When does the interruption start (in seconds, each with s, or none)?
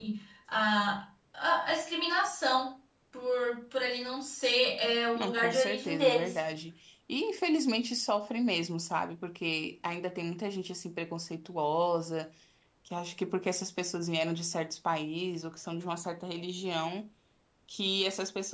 5.2 s